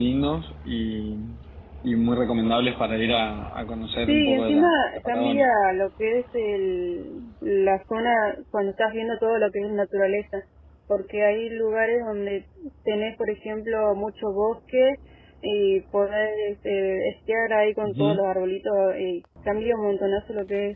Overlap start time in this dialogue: 4 s

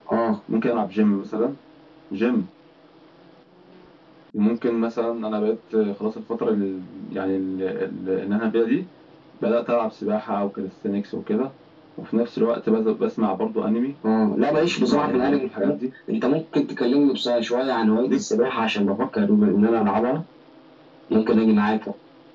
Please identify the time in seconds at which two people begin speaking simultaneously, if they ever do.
15 s

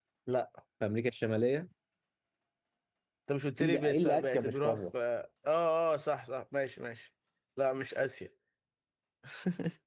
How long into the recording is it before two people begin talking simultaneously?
4 s

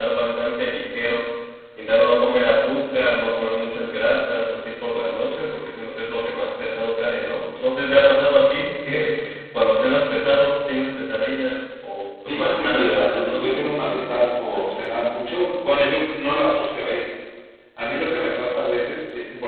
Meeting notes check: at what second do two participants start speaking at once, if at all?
12 s

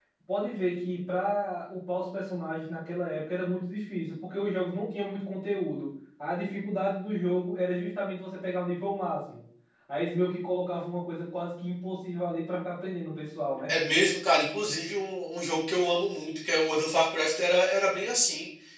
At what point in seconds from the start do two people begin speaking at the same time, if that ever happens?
none

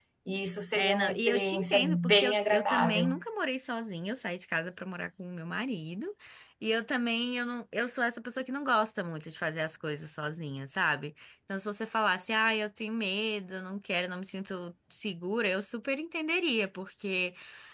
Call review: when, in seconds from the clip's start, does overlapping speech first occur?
1 s

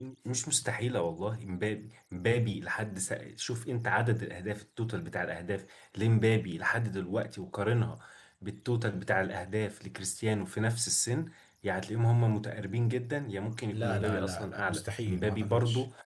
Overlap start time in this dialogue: 14 s

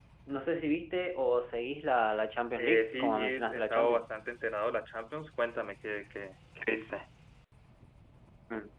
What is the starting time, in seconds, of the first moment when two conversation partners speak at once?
3 s

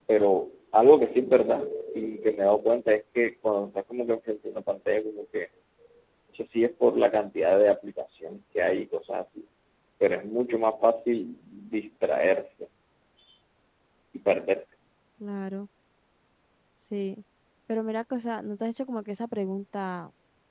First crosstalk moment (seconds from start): none

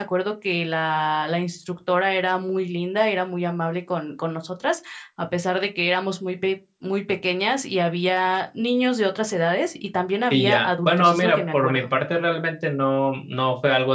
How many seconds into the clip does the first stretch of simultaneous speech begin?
10 s

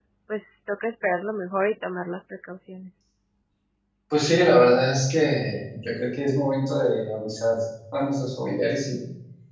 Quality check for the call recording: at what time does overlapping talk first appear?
none

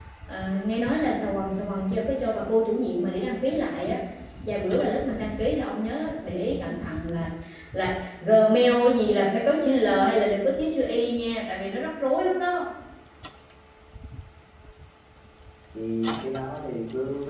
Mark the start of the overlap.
none

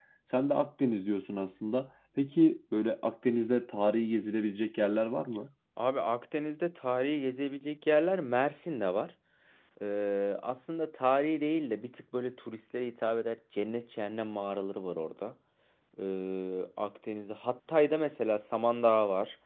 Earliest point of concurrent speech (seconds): none

